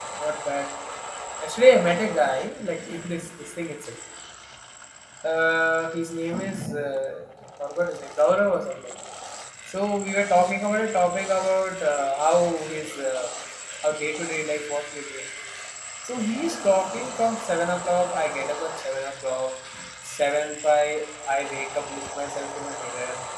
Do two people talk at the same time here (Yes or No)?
No